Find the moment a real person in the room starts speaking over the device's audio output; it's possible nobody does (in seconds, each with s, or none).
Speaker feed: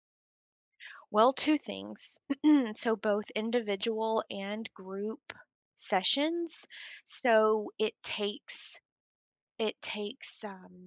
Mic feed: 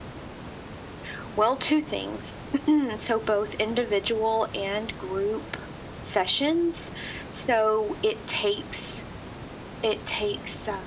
none